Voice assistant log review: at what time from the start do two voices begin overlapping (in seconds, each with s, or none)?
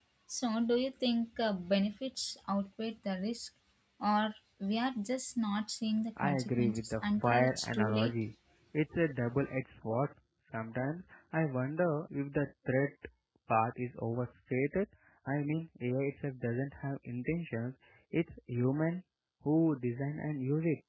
6.2 s